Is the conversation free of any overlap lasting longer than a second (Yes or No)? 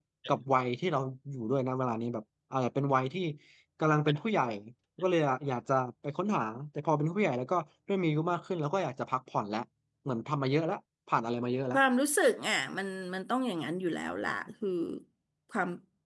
Yes